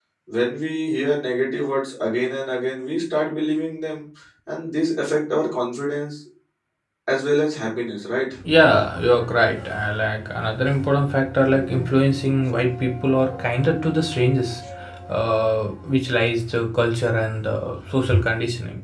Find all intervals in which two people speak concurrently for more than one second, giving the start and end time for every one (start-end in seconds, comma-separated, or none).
none